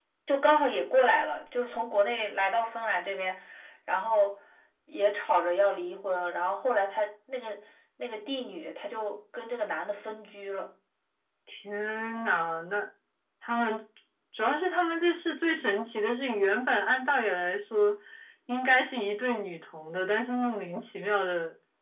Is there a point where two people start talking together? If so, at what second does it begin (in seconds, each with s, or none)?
none